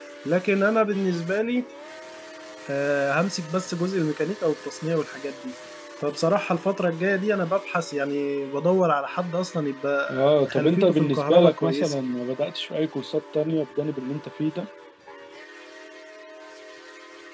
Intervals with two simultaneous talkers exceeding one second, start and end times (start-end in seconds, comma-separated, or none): 10.1-11.9